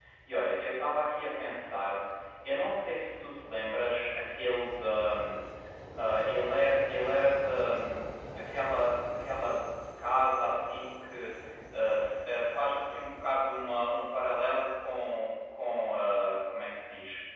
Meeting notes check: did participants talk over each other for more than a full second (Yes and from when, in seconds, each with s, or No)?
No